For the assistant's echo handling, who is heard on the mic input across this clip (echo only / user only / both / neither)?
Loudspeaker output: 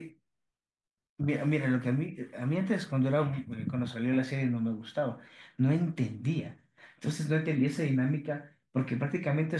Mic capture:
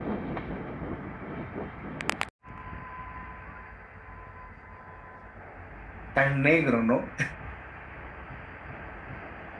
user only